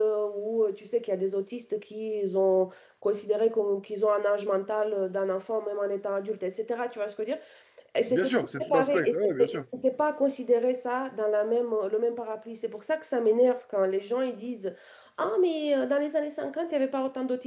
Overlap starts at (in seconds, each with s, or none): 8.1 s